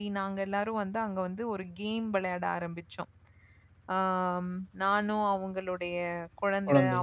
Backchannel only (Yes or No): Yes